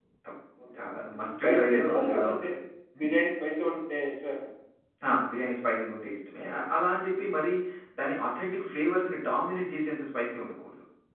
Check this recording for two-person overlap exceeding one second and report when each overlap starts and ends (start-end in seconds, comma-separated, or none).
1.2-2.5